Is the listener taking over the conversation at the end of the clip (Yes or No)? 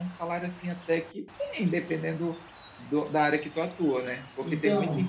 No